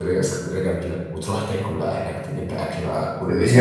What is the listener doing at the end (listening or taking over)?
taking over